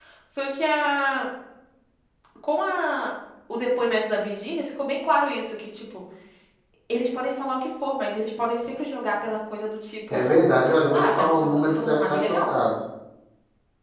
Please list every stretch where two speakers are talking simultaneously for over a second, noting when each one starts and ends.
10.9-12.5

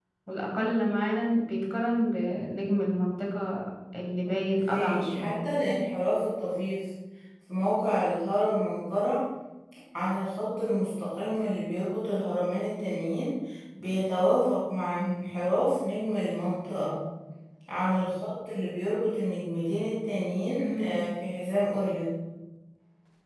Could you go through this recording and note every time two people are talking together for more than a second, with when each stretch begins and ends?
4.3-5.5

